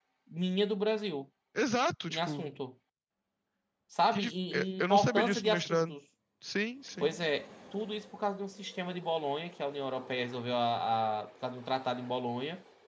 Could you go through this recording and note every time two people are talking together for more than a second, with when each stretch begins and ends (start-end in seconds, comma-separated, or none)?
4.1-6.0